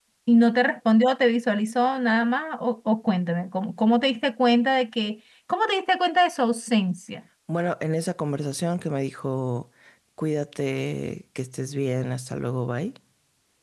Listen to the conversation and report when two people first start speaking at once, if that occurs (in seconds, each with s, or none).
none